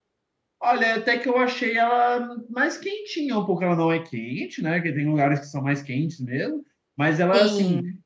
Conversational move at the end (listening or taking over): listening